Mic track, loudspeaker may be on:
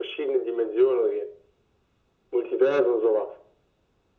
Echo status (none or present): present